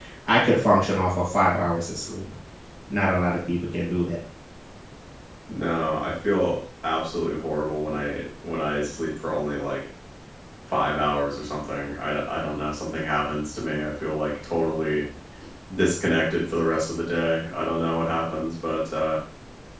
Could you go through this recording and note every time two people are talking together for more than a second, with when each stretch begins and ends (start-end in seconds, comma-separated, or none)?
none